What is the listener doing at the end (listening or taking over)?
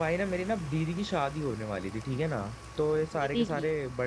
listening